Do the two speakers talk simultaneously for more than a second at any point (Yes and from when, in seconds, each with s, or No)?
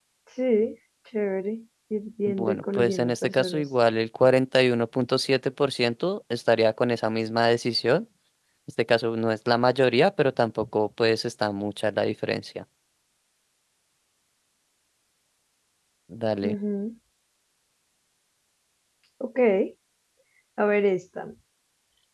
Yes, from 2.3 s